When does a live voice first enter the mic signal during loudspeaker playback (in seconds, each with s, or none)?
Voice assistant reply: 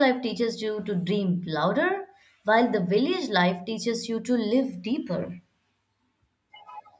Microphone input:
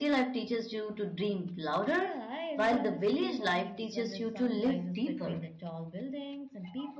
1.9 s